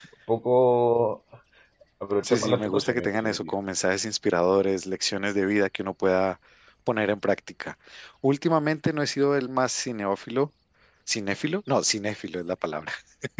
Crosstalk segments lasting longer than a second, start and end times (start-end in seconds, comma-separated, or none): 2.2-3.5